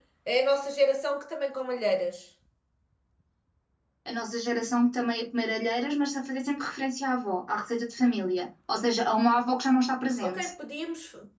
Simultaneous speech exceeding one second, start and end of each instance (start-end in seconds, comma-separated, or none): none